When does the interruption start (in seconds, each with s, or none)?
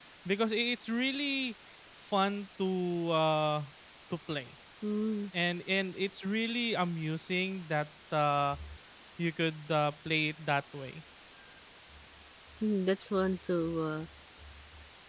none